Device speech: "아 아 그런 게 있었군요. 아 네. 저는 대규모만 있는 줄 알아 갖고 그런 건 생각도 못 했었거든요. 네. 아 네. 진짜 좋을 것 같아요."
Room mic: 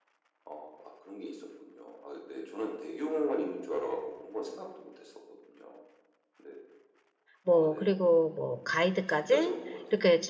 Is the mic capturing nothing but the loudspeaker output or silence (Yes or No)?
No